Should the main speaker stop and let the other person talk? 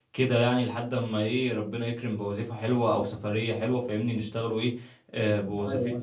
No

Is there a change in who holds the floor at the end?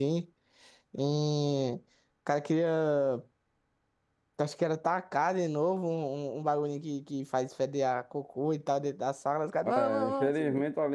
Yes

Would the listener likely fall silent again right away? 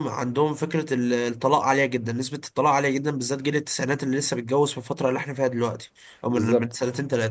Yes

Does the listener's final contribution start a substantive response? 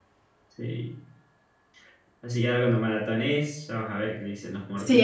Yes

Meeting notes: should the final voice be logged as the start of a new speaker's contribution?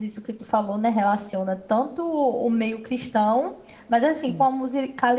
No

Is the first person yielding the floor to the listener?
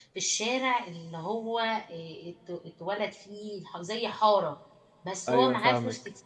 No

